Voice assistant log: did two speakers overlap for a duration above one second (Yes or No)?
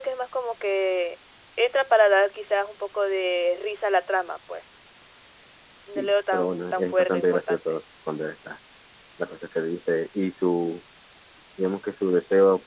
Yes